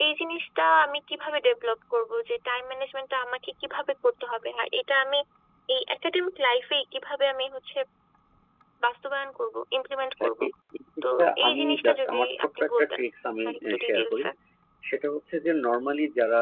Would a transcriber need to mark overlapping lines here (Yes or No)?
Yes